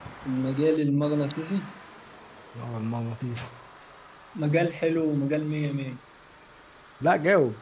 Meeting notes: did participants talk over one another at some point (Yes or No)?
No